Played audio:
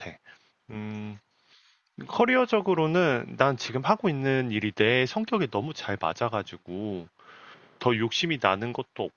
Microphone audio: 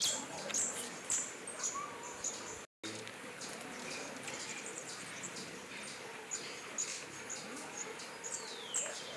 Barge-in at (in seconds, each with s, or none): none